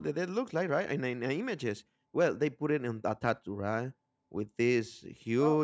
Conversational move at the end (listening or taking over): listening